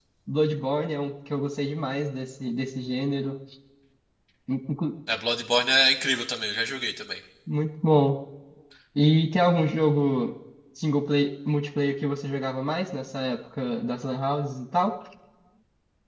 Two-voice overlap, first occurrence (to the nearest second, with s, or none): none